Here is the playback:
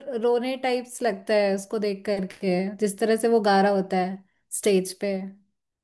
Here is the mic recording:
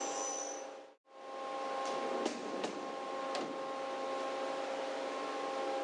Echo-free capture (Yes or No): Yes